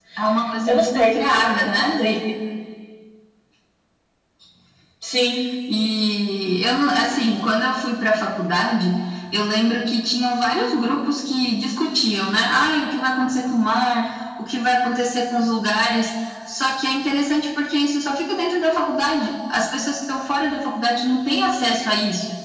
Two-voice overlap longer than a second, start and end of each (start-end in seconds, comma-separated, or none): none